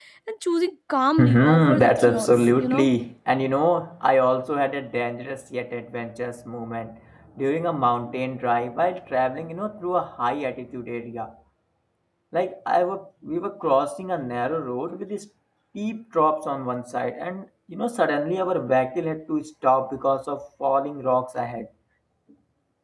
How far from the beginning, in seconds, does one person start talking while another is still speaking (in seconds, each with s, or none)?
1.2 s